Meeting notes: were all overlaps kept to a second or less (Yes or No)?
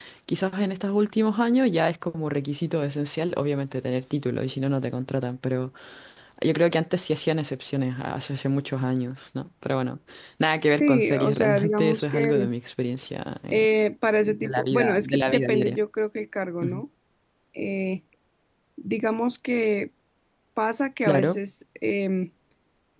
No